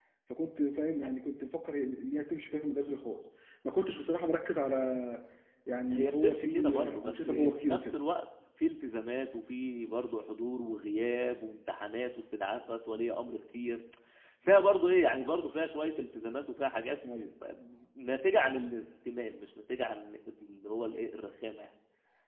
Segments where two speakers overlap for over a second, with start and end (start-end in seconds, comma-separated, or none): 5.9-8.0